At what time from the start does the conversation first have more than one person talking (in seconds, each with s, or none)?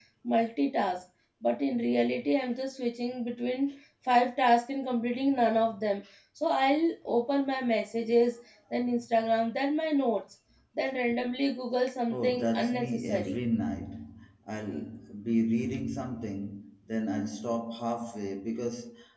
12.1 s